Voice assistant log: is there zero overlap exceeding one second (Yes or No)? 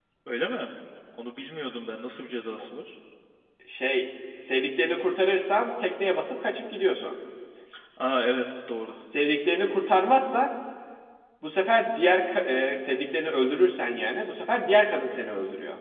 Yes